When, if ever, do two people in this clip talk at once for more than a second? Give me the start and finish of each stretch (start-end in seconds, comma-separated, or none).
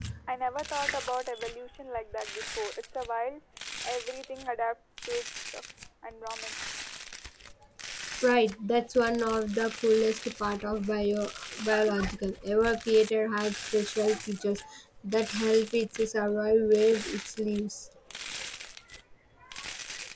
none